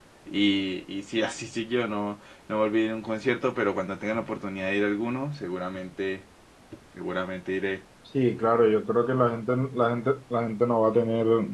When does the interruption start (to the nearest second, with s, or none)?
none